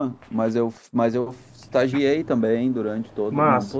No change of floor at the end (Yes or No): Yes